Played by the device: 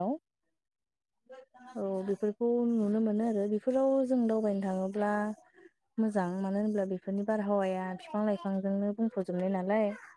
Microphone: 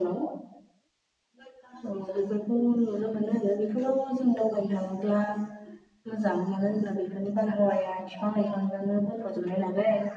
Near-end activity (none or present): none